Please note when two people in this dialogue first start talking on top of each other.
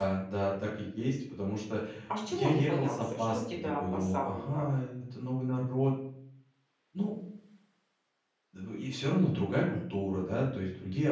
2.3 s

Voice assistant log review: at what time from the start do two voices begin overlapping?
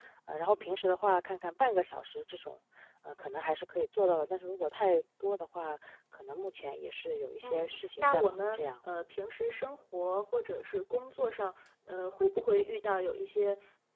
7.4 s

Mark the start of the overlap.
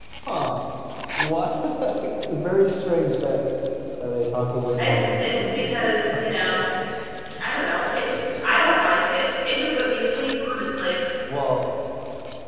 4.8 s

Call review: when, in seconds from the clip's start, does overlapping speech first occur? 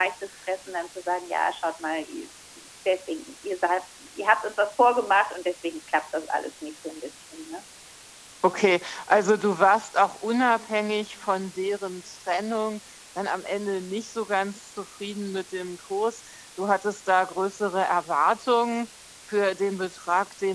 none

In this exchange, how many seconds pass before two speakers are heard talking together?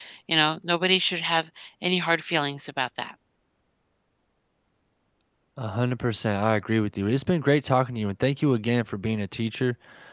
none

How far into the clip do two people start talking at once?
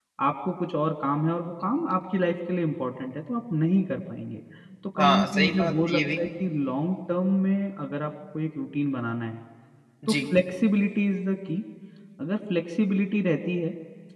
5.0 s

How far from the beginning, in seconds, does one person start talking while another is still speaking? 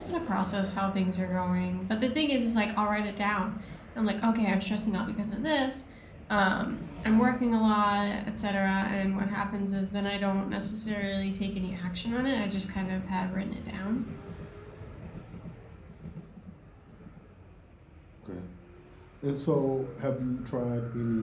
none

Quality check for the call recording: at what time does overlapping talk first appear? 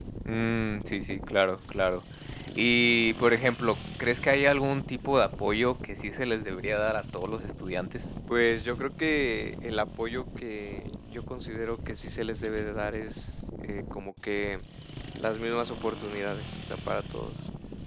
none

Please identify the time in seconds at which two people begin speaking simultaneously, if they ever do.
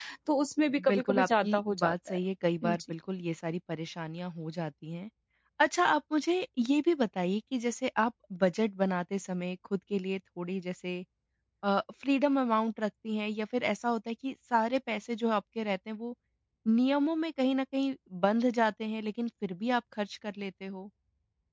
0.8 s

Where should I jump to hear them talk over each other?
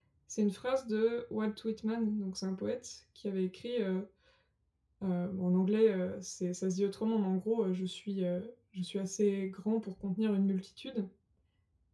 none

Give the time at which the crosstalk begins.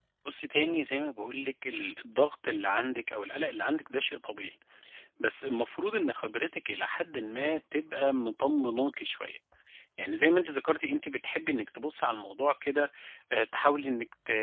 none

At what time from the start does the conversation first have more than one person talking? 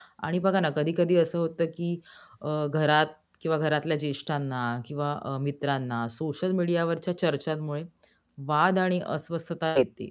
none

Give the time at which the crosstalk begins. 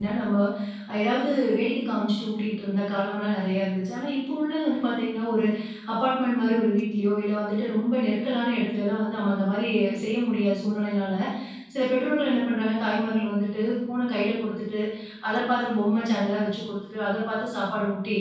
none

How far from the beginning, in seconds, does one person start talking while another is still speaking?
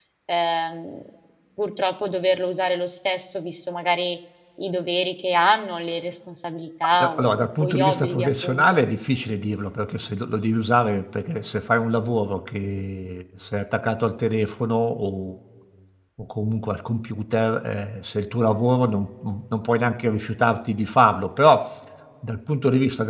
6.9 s

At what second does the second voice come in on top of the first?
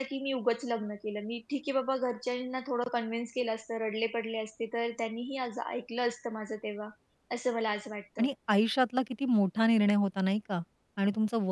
none

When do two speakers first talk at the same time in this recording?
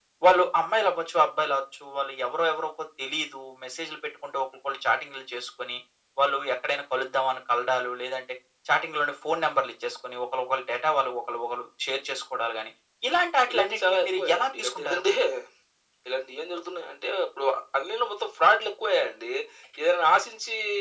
13.5 s

